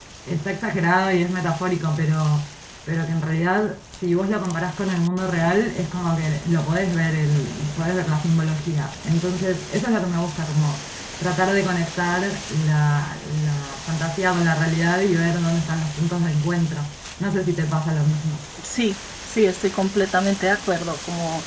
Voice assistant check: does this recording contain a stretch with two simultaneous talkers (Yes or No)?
No